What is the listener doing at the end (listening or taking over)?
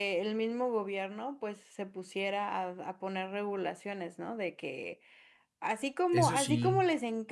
listening